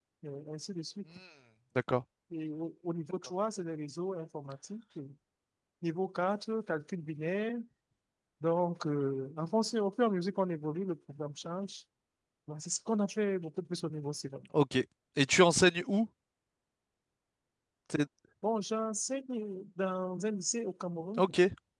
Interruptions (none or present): none